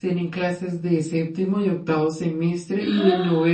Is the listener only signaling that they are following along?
Yes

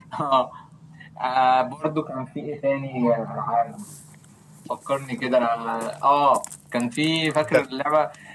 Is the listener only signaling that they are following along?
Yes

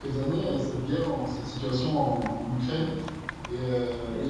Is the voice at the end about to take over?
Yes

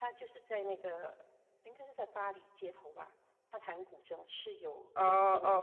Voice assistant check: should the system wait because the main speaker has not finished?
No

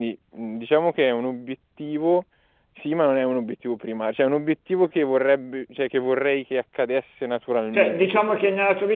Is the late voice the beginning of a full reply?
Yes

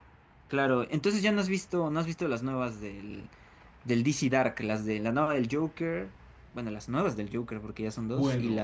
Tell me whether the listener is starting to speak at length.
Yes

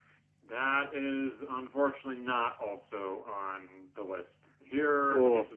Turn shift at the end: No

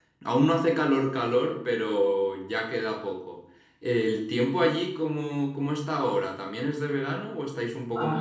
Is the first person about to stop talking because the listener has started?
Yes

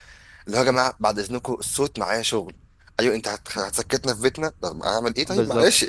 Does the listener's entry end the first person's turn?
Yes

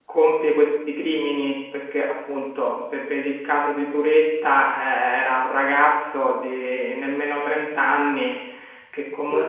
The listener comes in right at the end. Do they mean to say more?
No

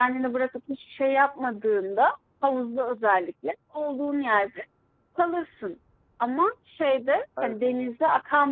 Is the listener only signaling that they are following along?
Yes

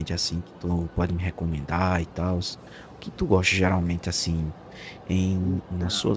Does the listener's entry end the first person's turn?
No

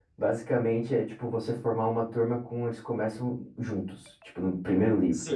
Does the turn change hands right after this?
Yes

